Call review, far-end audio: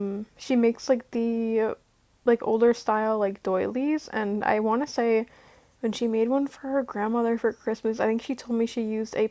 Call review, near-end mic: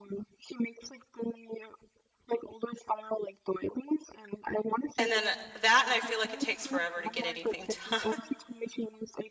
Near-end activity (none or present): present